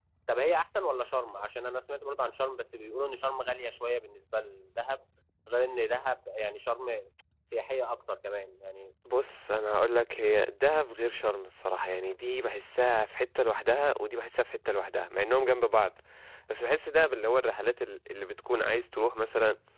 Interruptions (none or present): none